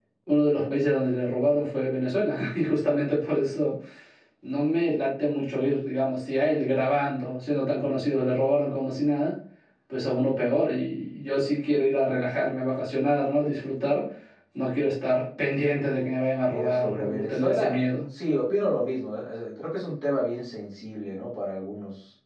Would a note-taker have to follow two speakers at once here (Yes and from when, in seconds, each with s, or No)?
Yes, from 16.5 s